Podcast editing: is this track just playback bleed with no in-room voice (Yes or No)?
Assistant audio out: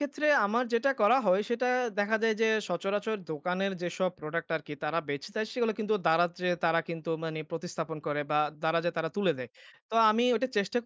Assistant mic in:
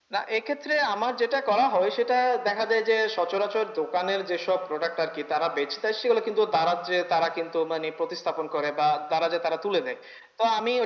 Yes